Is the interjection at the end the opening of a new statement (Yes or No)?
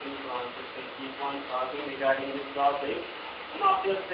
No